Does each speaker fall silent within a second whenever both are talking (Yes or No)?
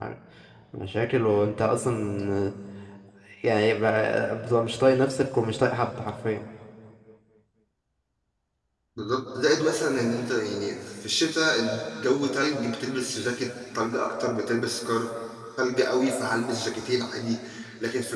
Yes